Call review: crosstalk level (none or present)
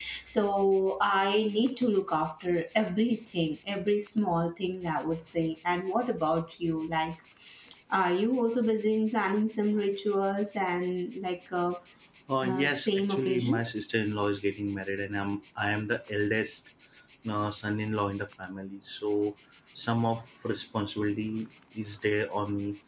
present